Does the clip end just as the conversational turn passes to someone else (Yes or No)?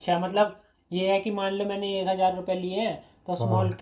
No